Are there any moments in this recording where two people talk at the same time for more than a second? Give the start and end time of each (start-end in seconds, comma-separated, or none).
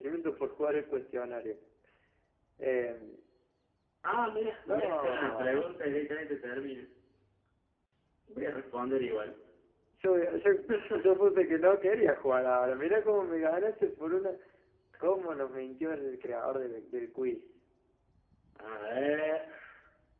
4.7-6.1